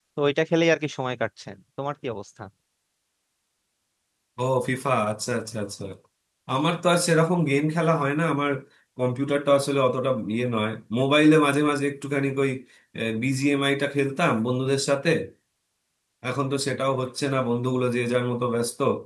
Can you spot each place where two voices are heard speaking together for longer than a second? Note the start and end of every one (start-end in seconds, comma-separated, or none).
none